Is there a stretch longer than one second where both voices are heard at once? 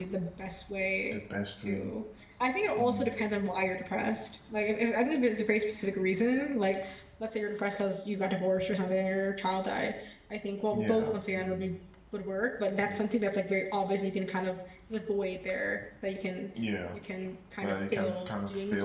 Yes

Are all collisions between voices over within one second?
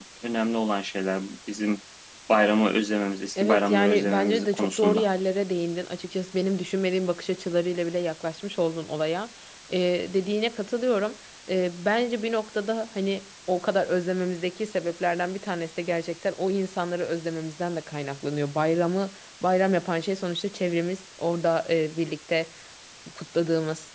No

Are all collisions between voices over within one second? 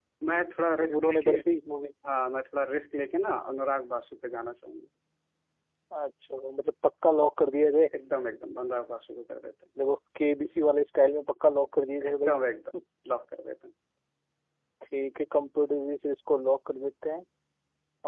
Yes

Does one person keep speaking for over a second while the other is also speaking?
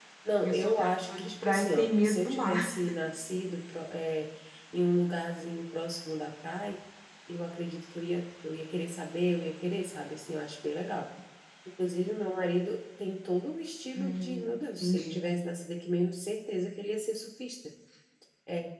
Yes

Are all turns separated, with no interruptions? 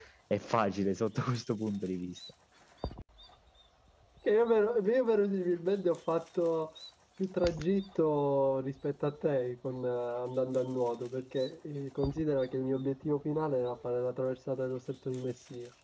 Yes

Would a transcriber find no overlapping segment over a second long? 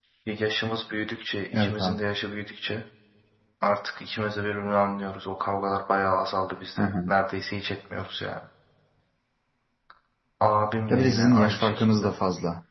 No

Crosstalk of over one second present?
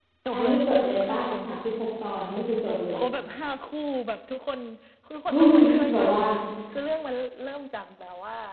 Yes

